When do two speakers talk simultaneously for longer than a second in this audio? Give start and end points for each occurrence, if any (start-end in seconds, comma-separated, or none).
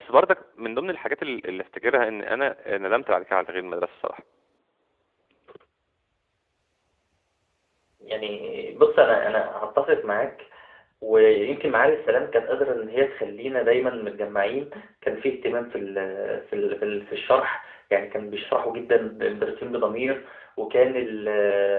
none